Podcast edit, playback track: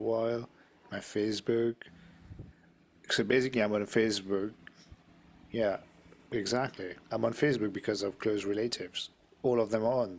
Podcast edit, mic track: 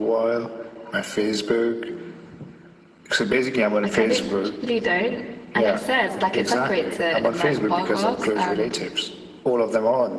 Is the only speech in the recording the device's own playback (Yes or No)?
No